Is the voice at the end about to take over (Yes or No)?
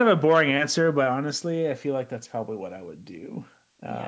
Yes